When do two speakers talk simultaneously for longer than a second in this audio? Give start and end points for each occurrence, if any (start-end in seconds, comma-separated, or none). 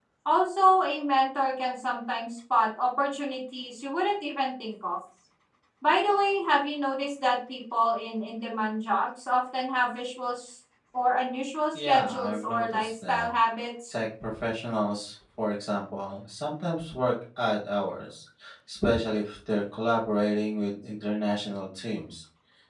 11.7-13.3